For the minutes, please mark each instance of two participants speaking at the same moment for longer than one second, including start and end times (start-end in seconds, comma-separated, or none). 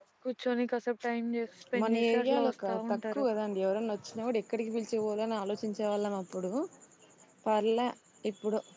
1.8-3.2